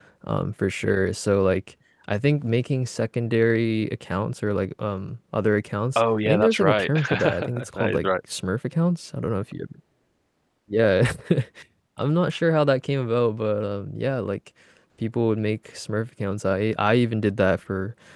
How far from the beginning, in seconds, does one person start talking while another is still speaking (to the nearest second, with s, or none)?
6 s